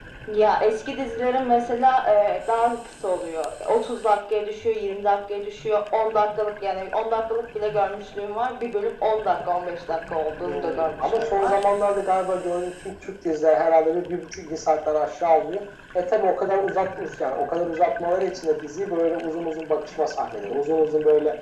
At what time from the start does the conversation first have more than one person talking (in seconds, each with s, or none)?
10.4 s